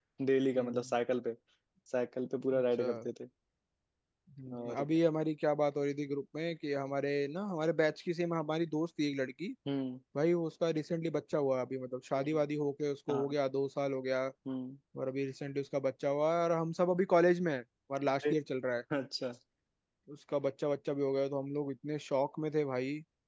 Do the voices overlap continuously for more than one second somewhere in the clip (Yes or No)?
No